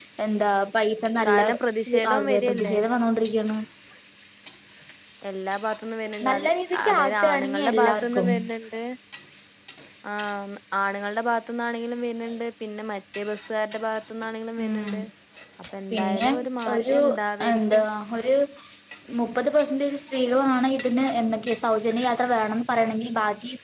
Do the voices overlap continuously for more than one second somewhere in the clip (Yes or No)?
Yes